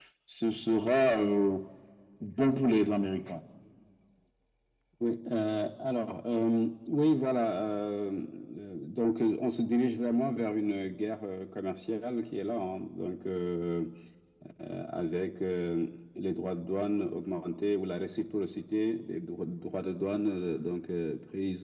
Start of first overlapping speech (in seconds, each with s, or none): none